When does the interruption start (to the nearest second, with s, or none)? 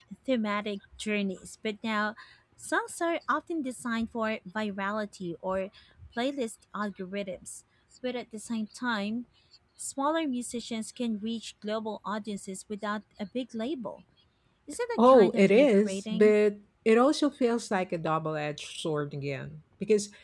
15 s